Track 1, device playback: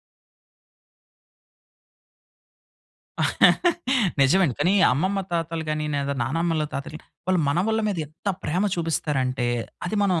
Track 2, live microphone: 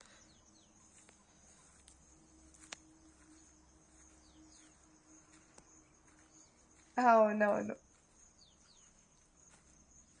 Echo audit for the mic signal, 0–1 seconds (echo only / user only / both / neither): neither